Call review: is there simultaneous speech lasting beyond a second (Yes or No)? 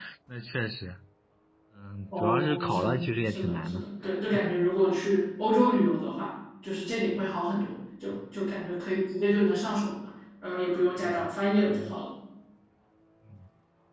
Yes